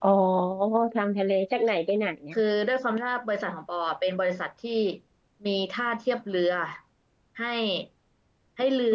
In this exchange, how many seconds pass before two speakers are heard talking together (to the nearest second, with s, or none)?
none